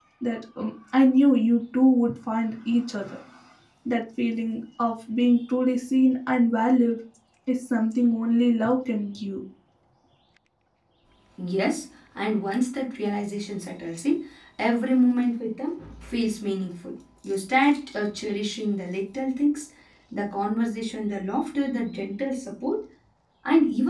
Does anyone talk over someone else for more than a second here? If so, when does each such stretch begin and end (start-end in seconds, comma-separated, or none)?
none